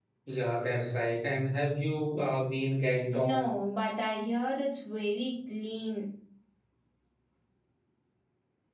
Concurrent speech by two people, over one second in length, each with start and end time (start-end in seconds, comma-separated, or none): none